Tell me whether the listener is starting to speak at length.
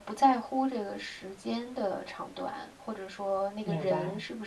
No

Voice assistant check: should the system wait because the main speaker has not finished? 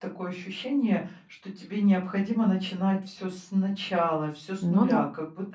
Yes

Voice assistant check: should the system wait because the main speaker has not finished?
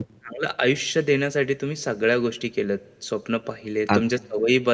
Yes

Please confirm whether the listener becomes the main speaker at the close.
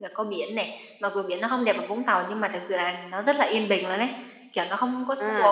Yes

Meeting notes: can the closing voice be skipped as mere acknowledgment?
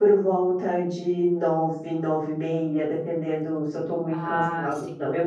Yes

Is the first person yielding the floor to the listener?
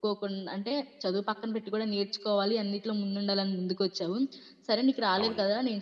No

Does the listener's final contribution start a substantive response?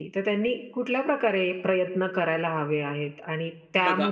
No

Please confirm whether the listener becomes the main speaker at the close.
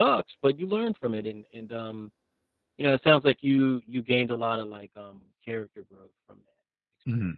Yes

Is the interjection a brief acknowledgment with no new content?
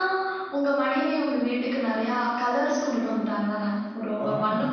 No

